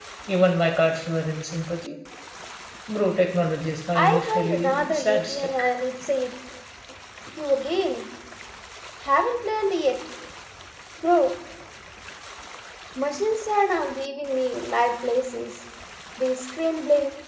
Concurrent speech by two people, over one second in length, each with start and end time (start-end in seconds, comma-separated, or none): 4.0-5.5